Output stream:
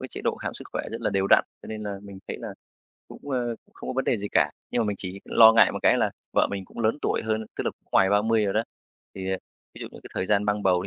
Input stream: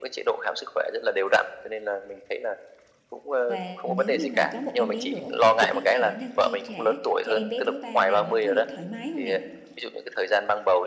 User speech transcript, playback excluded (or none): Và nếu như mà có một em bé nữa thì cái khả năng chi trả cho em bé thứ ba này nó có được thoải mái không nè?